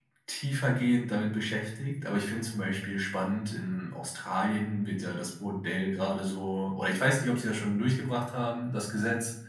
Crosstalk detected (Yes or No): No